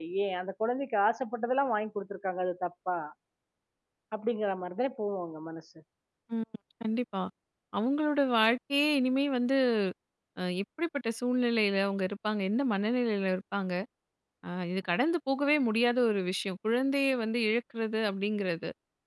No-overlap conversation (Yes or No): Yes